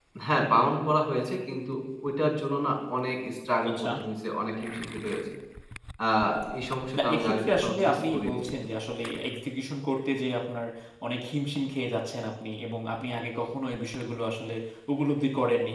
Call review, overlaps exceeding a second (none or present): present